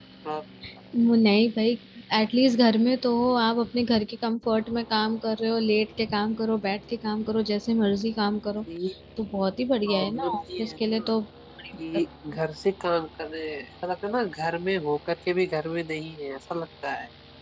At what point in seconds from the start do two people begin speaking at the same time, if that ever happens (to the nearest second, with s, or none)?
10 s